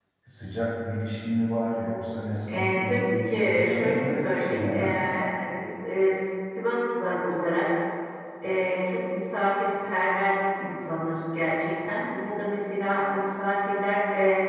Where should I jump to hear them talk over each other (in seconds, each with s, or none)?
2.5 s